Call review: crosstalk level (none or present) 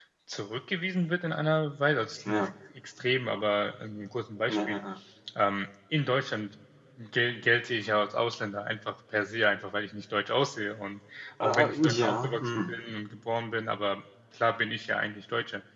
present